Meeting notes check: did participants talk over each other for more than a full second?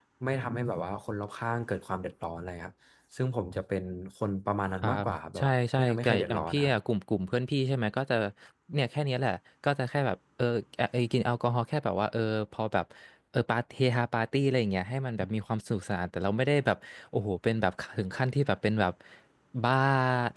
Yes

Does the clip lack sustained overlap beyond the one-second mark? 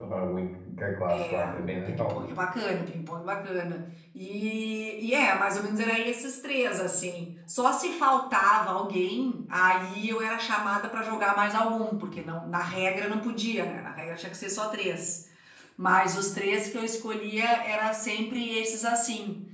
Yes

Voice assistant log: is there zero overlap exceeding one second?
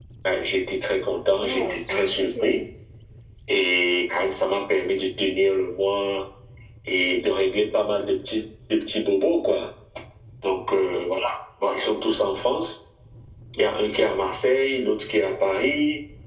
No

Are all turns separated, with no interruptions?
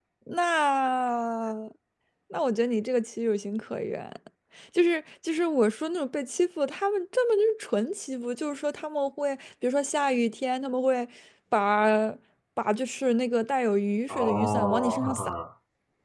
No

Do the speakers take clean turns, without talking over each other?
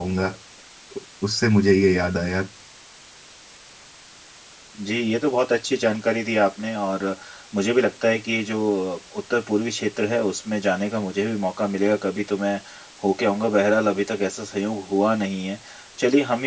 Yes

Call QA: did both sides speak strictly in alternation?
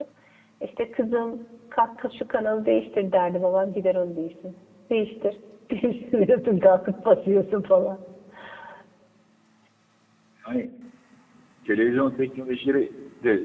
Yes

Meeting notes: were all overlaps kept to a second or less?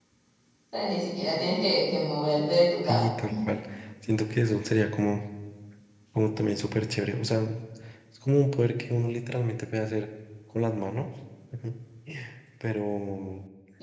Yes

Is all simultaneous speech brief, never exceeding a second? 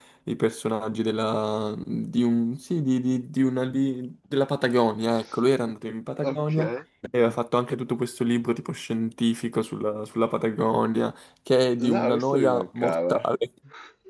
No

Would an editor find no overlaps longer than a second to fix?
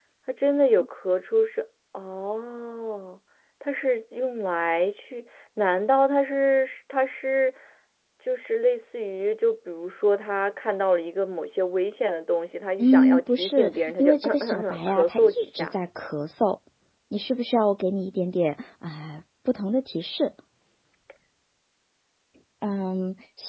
No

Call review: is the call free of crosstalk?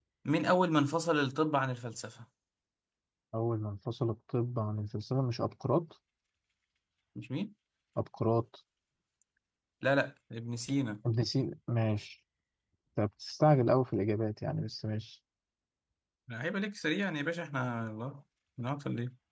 Yes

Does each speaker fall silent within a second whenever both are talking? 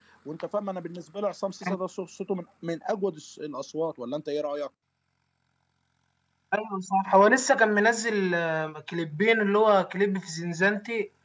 Yes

